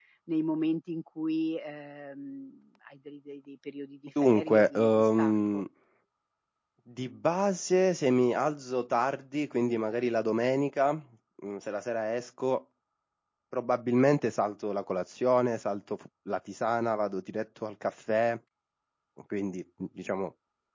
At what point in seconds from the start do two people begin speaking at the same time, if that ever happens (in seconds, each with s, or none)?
4.2 s